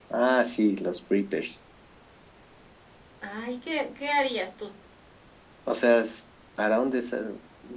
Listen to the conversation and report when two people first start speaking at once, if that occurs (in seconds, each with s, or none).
none